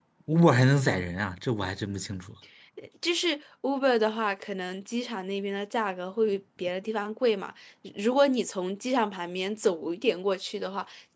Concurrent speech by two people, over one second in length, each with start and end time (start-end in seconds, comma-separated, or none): none